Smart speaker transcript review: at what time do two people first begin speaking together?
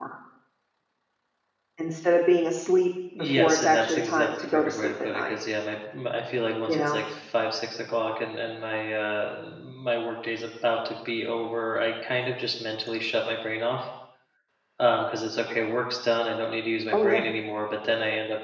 3.2 s

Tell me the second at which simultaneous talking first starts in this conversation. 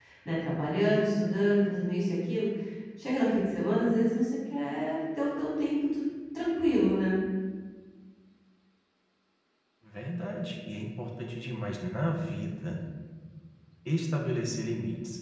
none

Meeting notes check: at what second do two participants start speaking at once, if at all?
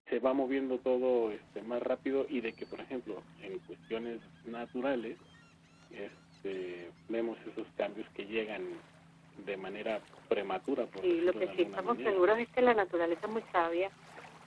11.0 s

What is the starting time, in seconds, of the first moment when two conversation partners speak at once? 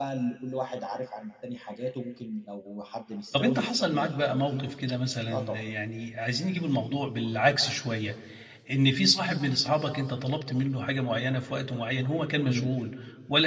3.3 s

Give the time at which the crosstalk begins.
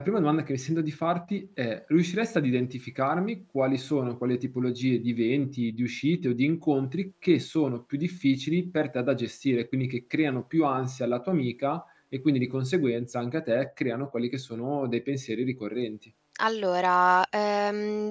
none

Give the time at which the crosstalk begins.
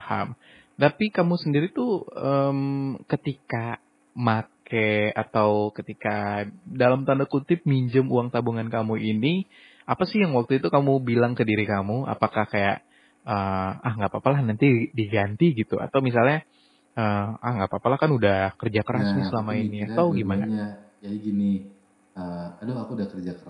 18.9 s

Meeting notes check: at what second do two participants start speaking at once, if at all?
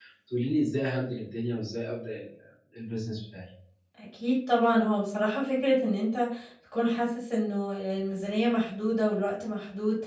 none

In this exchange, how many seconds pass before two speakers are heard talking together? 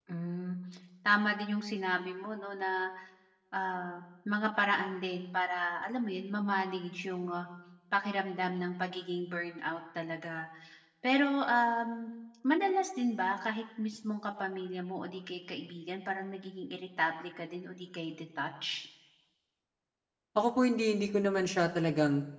none

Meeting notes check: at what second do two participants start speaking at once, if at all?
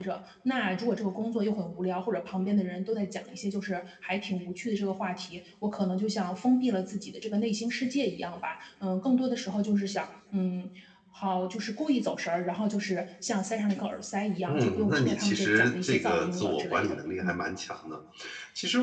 14.5 s

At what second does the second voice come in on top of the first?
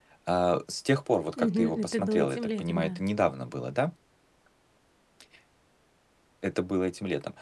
1.4 s

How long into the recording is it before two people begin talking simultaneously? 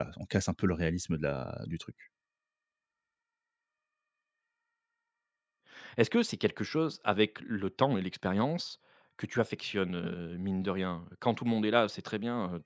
none

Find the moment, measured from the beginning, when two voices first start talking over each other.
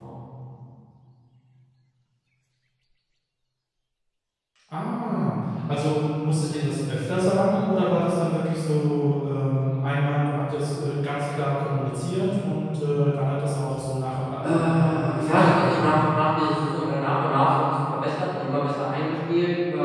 14.4 s

